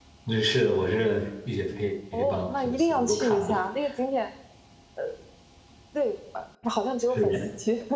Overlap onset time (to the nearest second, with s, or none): 2 s